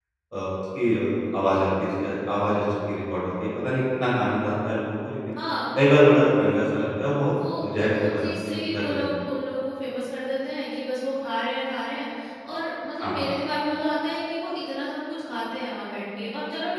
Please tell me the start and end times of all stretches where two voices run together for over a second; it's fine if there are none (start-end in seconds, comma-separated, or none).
7.6-9.1